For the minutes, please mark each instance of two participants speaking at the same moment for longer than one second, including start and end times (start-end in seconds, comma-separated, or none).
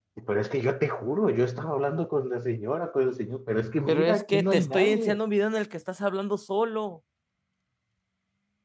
3.9-5.2